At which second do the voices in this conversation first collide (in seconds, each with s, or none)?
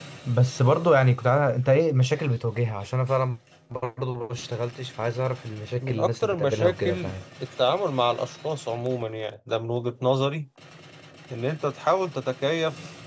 5.8 s